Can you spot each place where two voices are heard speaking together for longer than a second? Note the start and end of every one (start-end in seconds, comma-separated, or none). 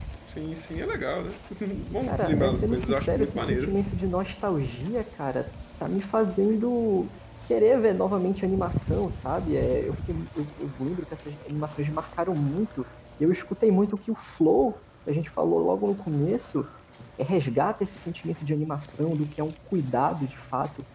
2.0-3.8